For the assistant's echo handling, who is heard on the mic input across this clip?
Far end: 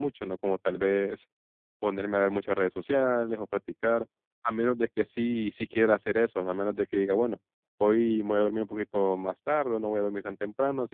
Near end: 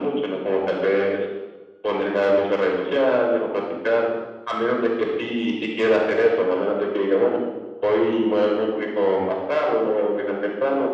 echo only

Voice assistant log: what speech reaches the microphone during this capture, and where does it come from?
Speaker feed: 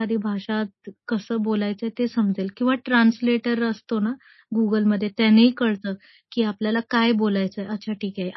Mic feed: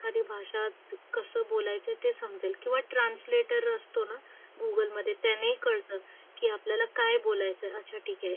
echo only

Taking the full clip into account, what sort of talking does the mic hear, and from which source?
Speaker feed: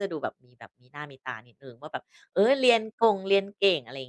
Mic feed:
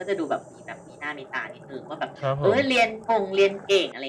both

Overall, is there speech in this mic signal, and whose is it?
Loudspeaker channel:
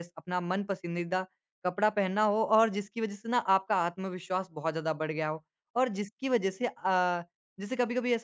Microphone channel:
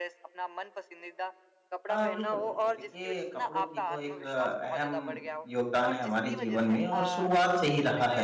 both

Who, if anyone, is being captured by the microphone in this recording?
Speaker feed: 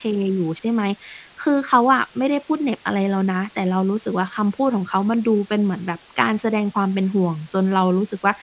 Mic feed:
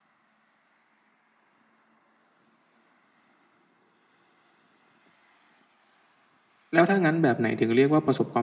user only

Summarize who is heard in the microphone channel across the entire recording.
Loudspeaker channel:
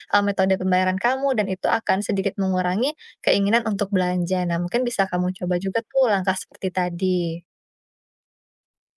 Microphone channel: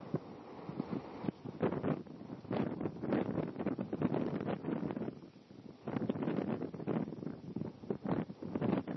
neither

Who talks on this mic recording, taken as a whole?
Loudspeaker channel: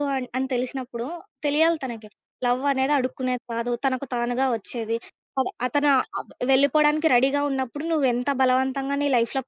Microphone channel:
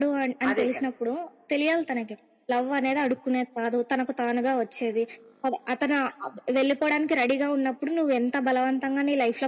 both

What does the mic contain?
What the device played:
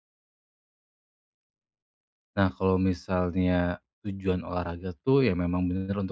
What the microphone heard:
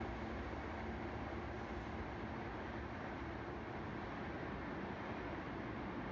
neither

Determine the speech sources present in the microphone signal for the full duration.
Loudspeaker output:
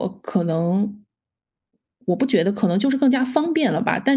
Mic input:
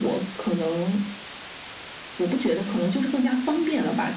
echo only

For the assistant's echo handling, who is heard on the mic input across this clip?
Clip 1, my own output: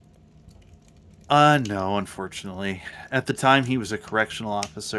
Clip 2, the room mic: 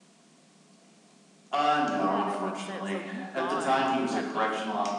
both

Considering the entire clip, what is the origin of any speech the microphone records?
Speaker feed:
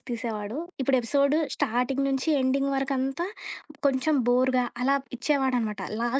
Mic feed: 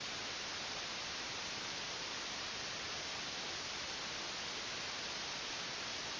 neither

